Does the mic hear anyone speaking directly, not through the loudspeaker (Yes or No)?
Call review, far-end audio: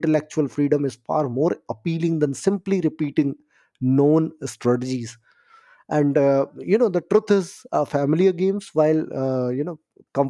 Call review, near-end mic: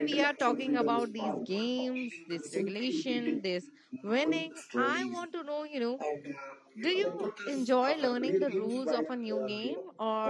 Yes